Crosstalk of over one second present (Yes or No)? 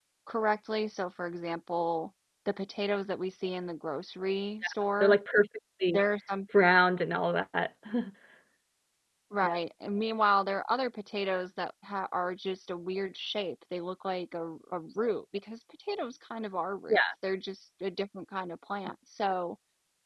No